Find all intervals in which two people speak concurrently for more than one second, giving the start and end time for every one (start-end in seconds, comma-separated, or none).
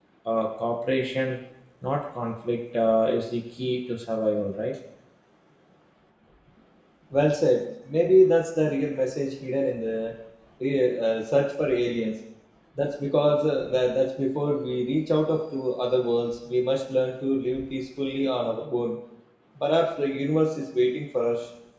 none